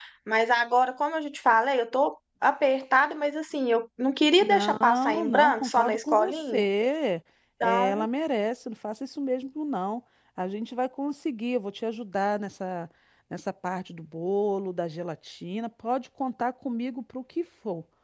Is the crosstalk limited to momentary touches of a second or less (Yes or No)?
No